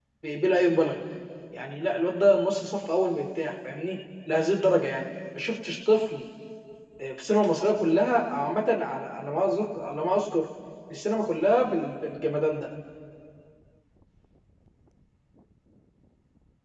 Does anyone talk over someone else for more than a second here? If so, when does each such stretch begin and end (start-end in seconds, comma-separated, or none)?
none